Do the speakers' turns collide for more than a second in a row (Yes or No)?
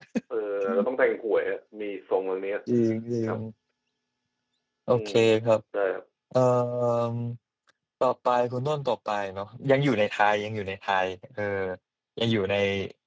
No